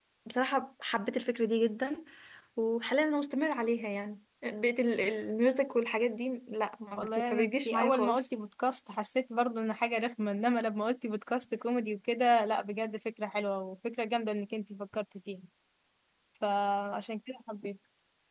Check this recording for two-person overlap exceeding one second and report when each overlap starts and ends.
7.0-8.3

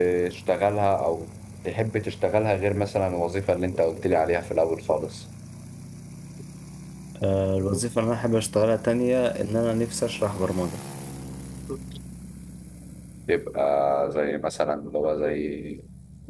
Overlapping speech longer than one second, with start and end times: none

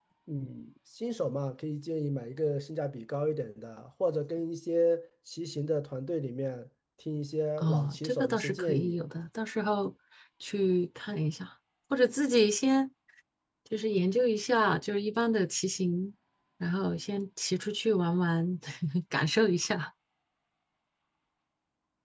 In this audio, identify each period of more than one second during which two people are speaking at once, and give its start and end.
7.6-9.0

